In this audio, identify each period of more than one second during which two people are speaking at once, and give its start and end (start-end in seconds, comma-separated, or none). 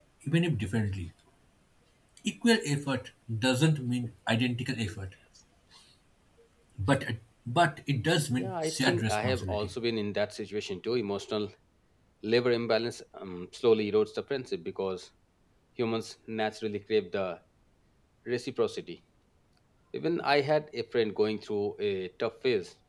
8.3-9.7